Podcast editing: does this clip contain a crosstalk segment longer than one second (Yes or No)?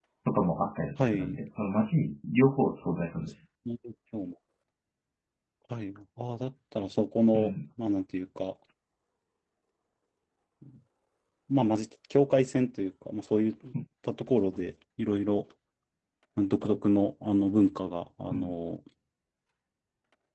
No